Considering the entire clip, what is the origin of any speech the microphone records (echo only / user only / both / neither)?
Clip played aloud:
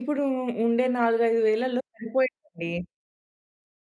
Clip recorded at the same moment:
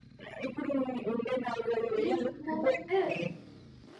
both